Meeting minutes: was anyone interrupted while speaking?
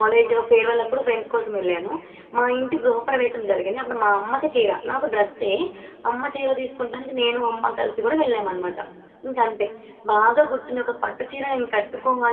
No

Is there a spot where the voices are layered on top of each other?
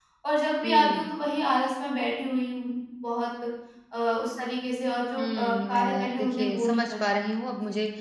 Yes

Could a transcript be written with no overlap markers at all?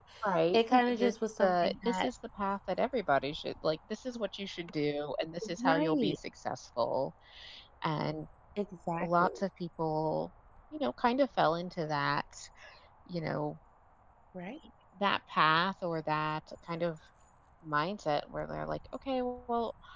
No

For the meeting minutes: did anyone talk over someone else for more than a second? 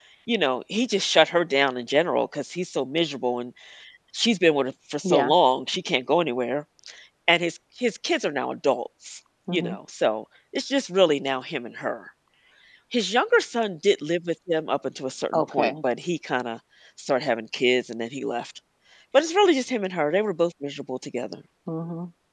No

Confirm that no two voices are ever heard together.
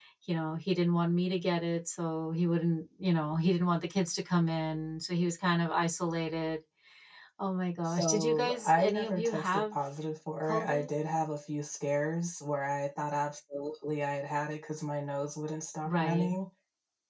No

